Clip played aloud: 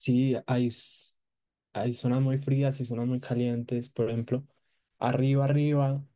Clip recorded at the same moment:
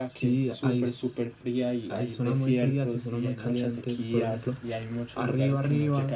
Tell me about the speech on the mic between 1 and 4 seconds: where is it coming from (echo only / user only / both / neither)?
both